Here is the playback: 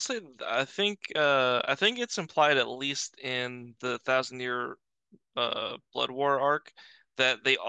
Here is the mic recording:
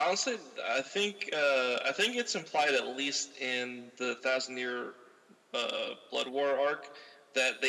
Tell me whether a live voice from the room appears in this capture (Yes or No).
No